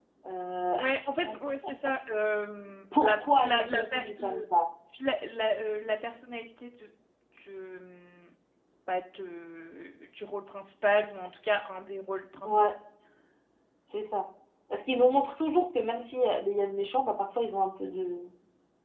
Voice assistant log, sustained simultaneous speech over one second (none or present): present